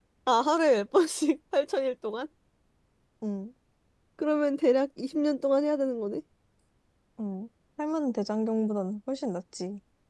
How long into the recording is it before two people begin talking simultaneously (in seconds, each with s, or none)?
none